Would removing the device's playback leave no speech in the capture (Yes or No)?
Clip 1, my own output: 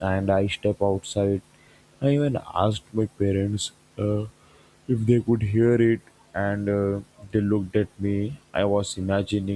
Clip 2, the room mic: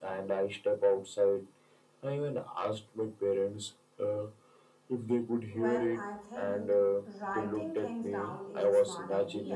No